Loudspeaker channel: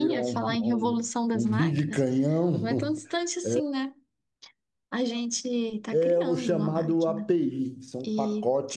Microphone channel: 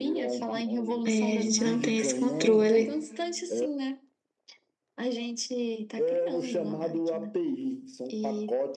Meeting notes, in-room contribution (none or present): present